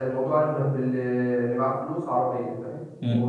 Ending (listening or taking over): taking over